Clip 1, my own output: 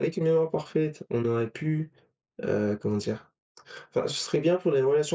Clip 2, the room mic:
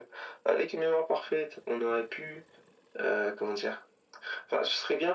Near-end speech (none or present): none